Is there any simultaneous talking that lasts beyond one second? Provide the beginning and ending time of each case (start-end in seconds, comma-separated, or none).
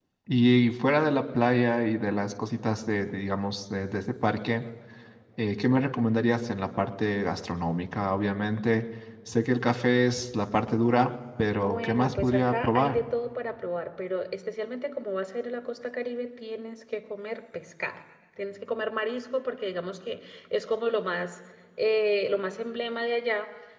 11.6-13.0